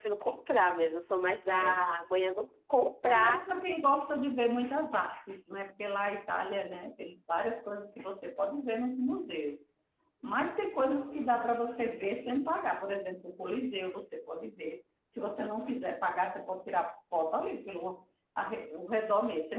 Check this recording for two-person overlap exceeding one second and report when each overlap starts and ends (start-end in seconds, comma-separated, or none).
none